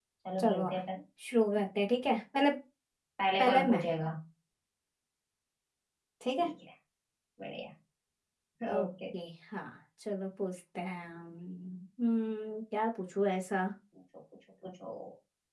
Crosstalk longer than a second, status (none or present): none